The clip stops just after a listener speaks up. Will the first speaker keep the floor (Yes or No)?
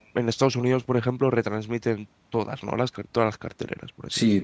No